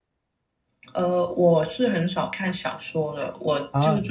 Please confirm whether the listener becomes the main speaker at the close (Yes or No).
No